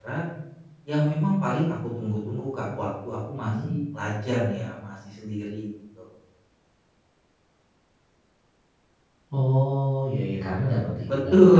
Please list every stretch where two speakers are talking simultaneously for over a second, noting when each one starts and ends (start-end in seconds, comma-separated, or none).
none